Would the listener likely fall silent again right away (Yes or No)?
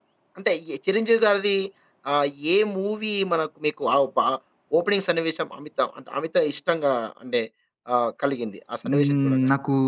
No